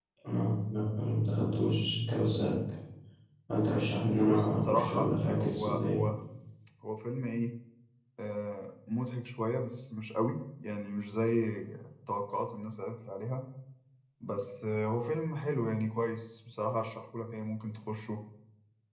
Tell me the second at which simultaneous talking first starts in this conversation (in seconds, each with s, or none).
4.2 s